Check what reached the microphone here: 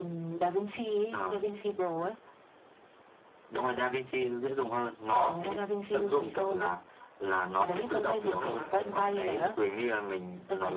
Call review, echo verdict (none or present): present